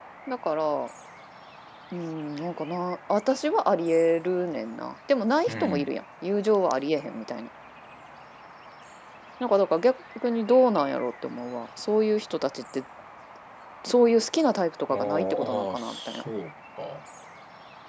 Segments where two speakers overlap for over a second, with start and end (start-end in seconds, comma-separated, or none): 14.9-16.2